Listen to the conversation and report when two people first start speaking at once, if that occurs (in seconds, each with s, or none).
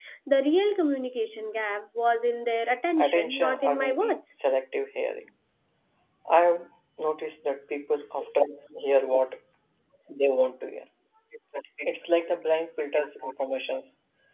3.0 s